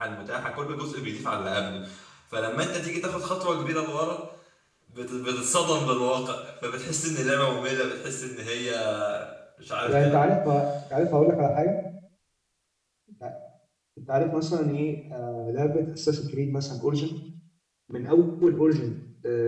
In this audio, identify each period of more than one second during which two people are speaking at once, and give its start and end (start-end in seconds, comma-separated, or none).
none